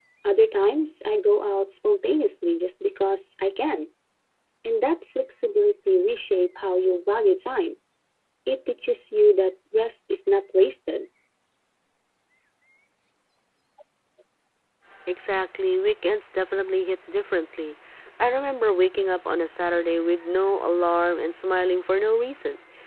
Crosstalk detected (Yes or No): No